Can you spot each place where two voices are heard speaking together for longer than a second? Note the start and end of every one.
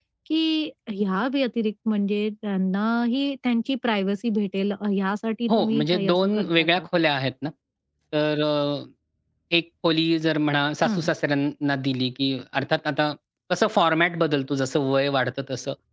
5.5-6.8

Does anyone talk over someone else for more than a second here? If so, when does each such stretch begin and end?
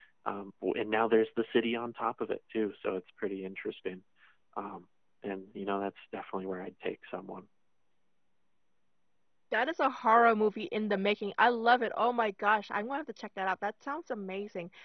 none

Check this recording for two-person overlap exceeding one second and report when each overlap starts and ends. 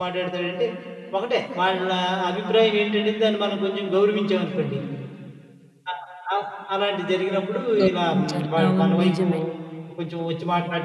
7.8-9.2

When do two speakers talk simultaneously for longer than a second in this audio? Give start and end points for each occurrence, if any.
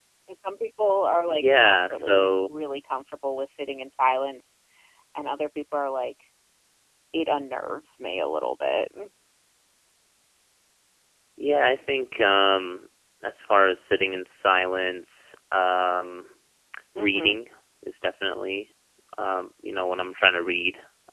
1.3-2.5

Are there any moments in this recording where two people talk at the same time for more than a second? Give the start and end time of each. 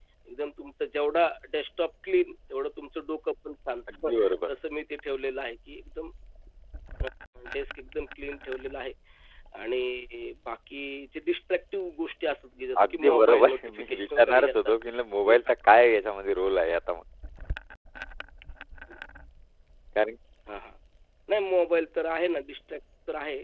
12.8-14.7

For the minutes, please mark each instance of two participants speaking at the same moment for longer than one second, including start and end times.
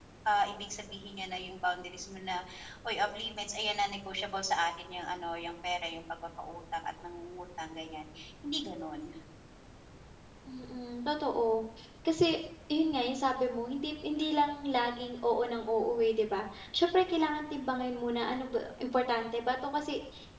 none

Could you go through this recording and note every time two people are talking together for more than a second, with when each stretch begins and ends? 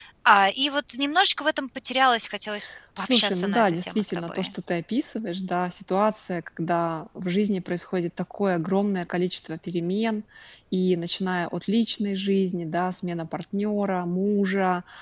3.0-4.5

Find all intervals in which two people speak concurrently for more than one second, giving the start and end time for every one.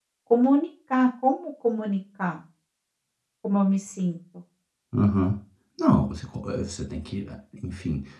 none

